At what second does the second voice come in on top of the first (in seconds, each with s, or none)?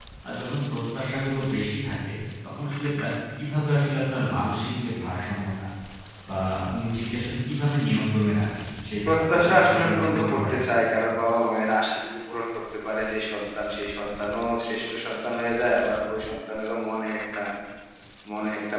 9.1 s